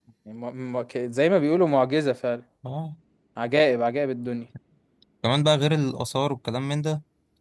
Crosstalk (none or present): none